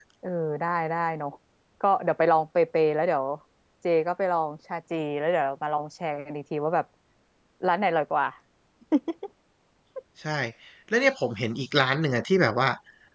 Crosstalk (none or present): none